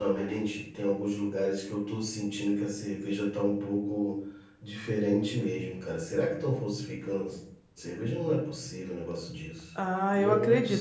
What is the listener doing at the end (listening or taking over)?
taking over